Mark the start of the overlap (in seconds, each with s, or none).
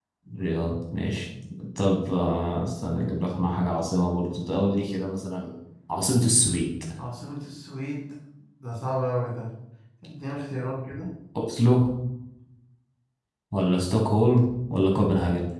none